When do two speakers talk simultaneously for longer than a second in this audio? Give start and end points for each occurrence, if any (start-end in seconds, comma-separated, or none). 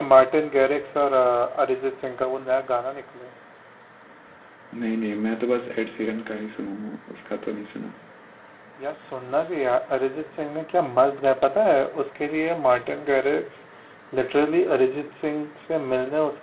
none